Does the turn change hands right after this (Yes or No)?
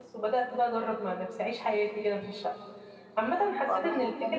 No